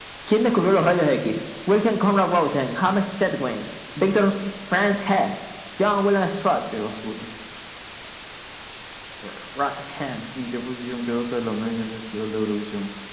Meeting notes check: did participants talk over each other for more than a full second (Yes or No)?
No